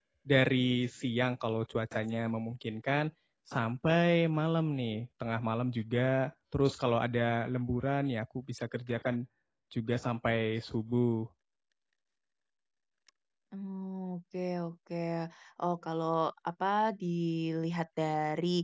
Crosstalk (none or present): none